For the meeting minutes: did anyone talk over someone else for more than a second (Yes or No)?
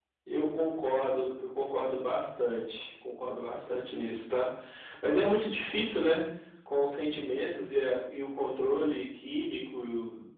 No